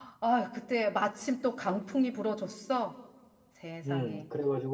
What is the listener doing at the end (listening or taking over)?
taking over